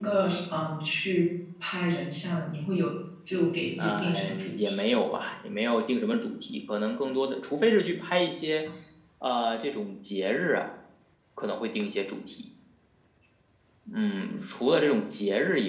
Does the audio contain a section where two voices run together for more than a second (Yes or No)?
Yes